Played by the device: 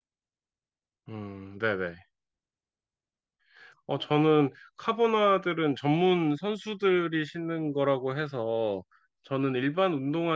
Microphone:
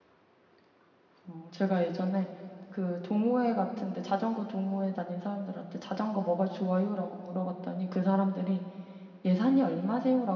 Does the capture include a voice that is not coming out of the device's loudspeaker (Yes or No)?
Yes